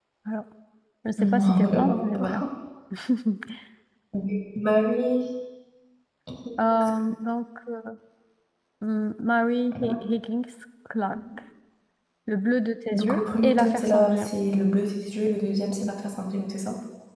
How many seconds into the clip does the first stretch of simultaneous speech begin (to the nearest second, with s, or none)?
1 s